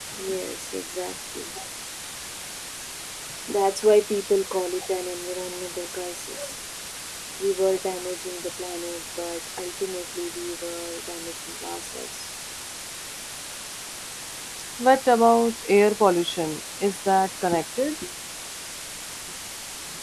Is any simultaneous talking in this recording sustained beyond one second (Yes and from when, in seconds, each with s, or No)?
No